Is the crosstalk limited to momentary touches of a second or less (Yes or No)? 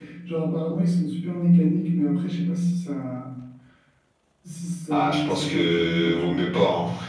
No